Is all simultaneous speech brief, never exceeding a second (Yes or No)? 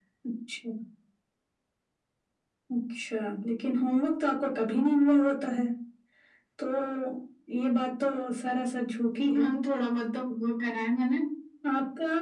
Yes